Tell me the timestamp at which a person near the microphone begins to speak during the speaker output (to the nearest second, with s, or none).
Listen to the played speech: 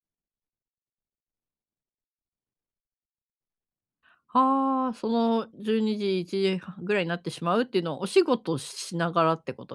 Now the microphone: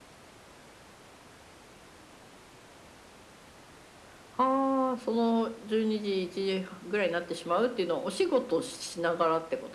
none